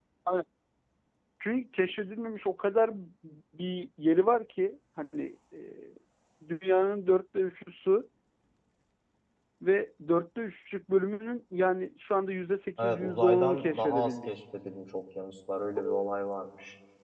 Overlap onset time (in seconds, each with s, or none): 12.8 s